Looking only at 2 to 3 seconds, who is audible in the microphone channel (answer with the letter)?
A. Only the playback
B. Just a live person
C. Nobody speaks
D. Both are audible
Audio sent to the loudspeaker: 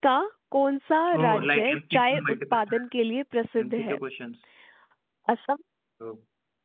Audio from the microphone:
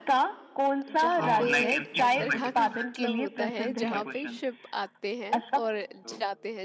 D